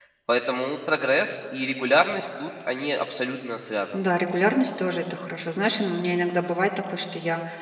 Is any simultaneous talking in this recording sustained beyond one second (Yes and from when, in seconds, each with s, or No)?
No